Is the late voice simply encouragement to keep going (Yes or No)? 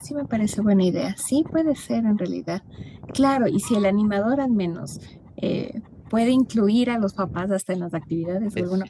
Yes